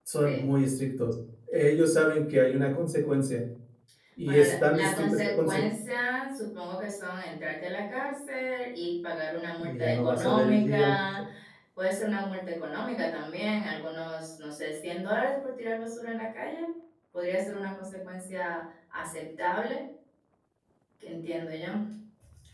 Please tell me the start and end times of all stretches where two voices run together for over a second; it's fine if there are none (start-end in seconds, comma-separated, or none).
4.3-5.6, 9.6-10.9